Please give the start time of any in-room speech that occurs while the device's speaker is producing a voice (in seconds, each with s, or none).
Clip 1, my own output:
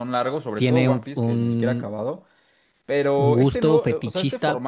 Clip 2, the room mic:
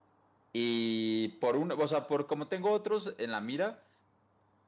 0.5 s